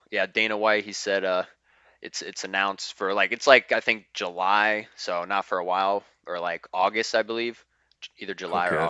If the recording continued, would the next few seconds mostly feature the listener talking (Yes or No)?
Yes